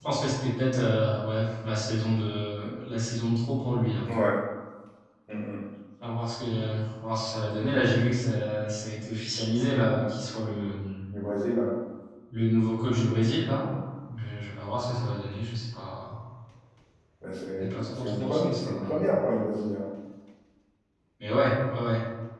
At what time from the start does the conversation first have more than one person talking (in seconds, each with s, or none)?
17.6 s